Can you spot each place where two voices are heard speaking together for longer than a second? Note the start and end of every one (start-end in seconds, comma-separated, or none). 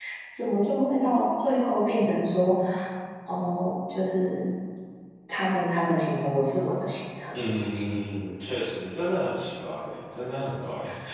none